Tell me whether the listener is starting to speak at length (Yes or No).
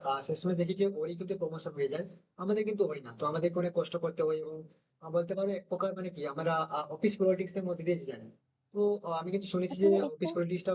No